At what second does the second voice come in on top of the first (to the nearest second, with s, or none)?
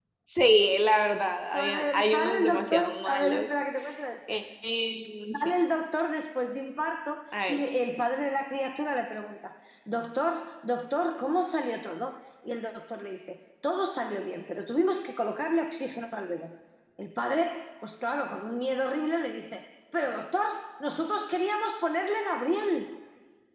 2 s